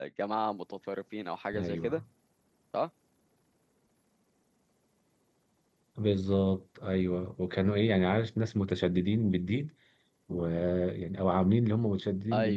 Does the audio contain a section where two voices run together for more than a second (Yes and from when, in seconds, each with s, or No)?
No